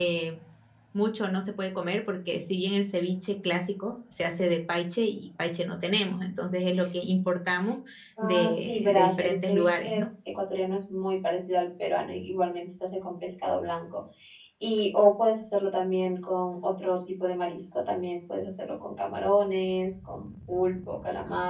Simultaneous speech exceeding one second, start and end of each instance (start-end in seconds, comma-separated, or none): 8.2-10.1